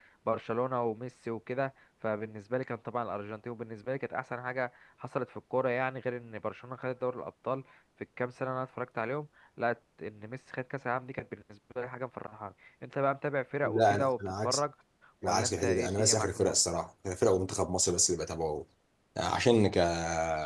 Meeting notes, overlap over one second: present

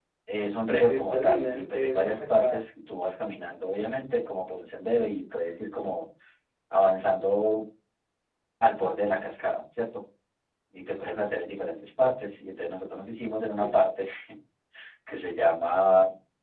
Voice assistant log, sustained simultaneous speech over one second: present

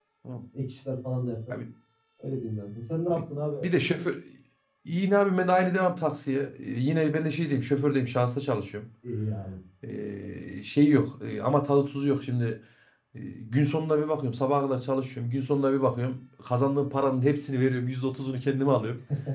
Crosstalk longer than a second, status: none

